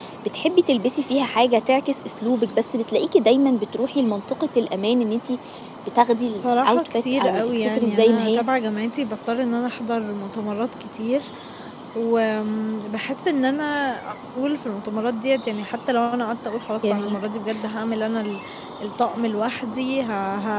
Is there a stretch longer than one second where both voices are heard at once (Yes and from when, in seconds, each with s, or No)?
Yes, from 6.3 s